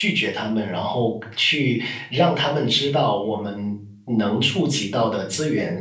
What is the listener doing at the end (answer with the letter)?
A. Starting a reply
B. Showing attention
B